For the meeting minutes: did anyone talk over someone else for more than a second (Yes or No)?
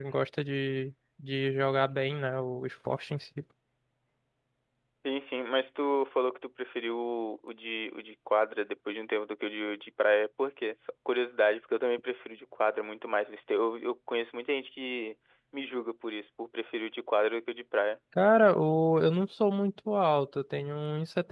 No